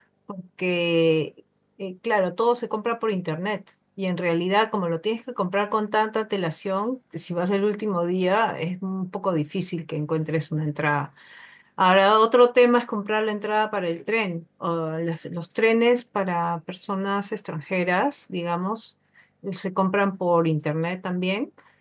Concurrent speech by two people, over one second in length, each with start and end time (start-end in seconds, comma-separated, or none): none